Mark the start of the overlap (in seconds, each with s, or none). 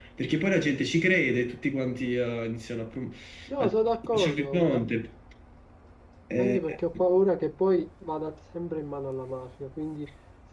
3.6 s